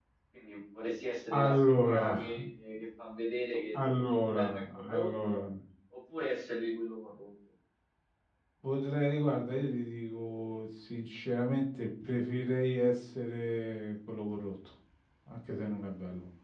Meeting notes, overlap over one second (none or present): present